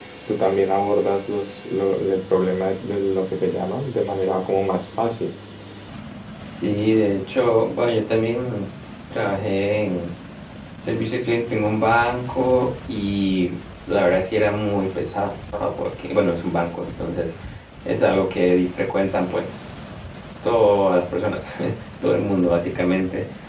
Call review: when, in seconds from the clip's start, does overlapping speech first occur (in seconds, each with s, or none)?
none